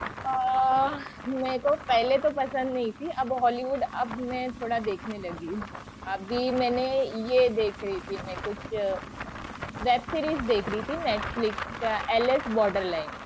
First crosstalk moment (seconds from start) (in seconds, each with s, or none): none